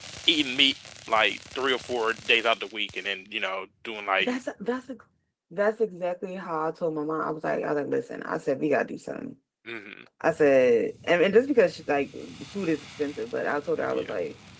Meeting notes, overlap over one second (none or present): none